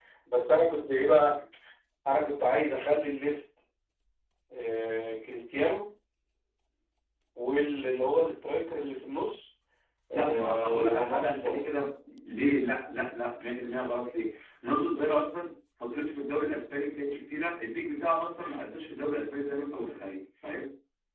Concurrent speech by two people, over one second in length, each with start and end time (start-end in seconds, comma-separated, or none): 10.1-11.7